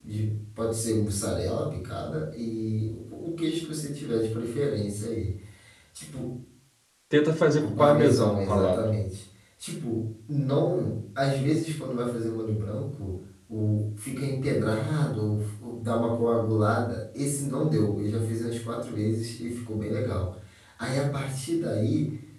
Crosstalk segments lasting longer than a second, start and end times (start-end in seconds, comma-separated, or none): 7.6-8.8